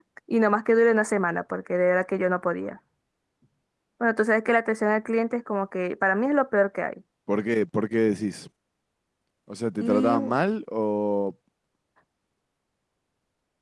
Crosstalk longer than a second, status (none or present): none